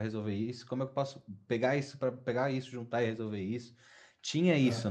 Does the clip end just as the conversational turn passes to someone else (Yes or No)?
No